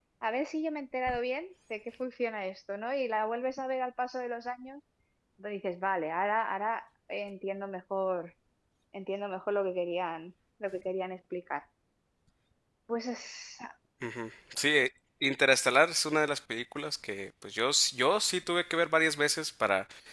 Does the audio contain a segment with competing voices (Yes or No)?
No